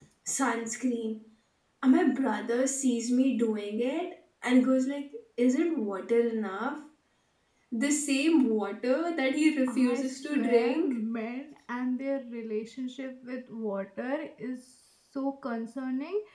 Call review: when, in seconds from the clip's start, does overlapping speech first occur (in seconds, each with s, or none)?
9.7 s